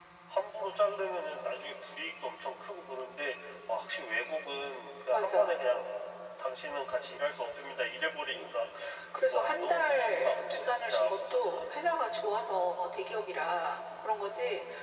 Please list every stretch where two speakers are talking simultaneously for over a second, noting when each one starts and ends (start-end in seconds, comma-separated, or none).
9.3-11.8